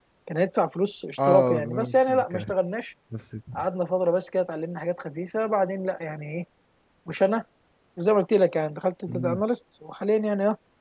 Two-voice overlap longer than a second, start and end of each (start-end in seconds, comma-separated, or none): 1.2-2.5